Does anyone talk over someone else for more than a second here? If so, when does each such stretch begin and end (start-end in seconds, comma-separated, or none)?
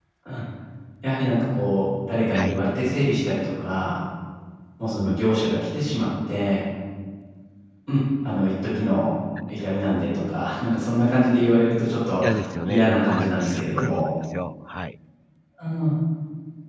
12.7-14.1